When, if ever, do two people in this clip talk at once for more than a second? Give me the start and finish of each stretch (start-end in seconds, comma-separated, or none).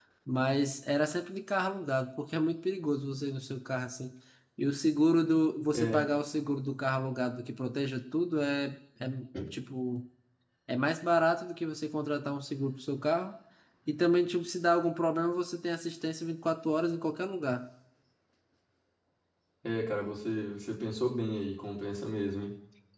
none